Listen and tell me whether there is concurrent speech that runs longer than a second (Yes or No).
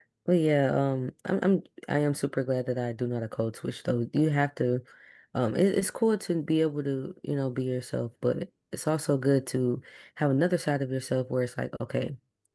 No